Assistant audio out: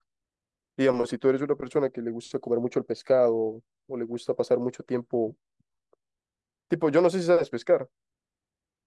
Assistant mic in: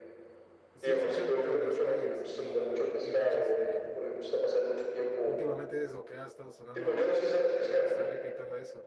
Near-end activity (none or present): present